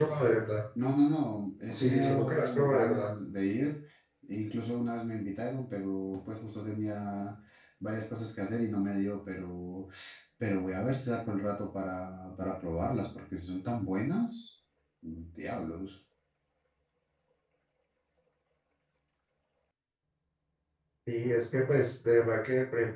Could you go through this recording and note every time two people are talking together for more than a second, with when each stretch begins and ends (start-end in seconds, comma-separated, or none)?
1.7-3.1